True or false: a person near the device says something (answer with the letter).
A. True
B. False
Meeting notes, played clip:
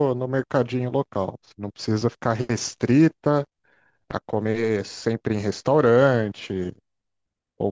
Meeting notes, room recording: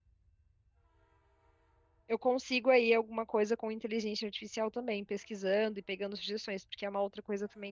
A